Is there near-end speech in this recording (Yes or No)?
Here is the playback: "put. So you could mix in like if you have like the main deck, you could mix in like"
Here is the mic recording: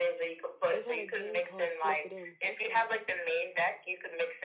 Yes